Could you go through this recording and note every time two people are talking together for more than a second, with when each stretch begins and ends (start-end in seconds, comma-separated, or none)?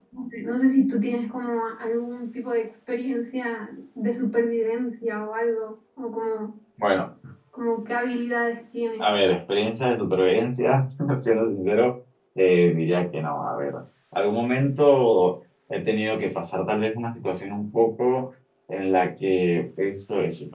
none